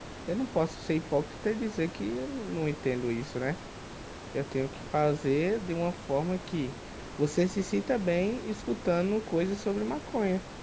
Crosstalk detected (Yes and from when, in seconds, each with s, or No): No